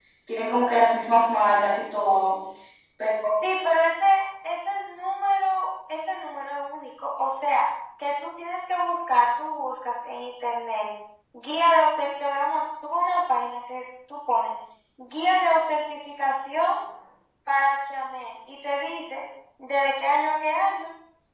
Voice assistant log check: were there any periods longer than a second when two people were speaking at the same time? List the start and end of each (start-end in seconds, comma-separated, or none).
none